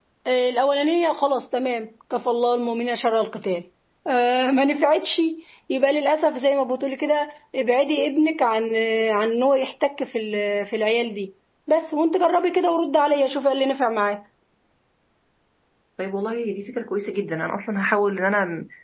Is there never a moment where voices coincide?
Yes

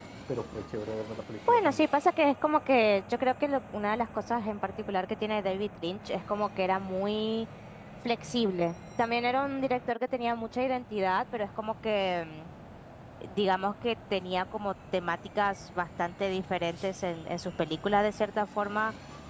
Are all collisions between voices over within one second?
Yes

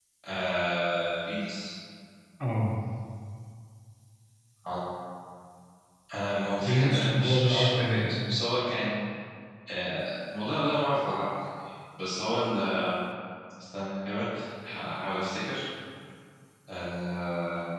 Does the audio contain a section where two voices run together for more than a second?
Yes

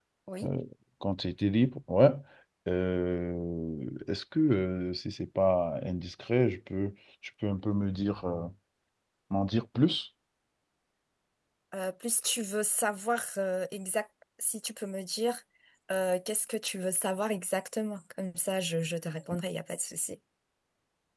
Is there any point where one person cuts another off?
No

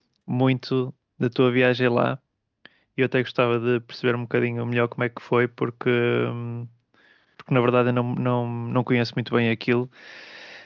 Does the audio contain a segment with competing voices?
No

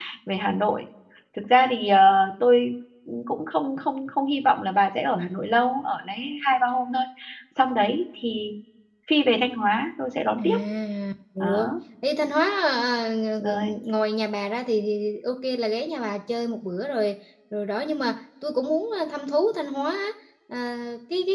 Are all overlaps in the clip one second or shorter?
Yes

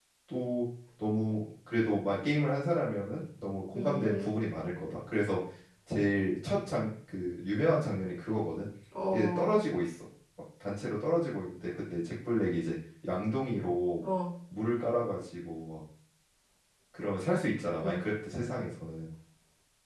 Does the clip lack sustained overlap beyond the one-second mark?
Yes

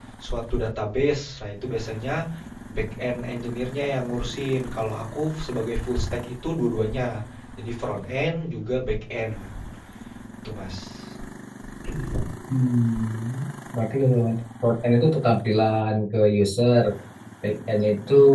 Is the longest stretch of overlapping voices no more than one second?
Yes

